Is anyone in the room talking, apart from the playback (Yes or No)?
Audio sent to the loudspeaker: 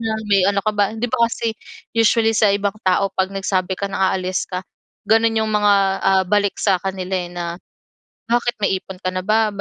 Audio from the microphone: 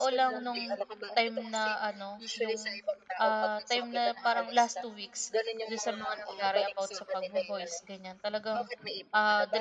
Yes